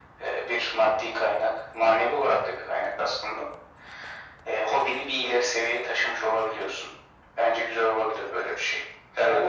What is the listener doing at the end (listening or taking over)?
taking over